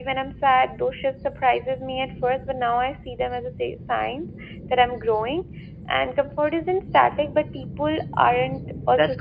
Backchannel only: No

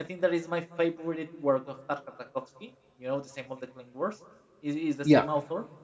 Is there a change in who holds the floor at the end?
No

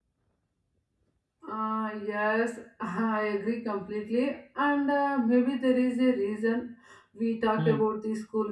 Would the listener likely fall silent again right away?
Yes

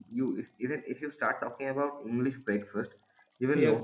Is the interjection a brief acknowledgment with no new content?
Yes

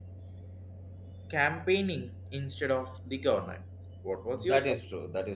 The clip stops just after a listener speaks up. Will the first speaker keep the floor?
No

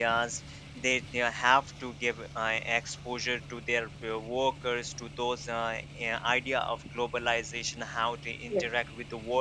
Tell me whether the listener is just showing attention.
Yes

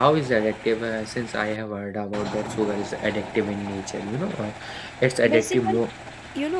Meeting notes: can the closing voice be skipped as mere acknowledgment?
No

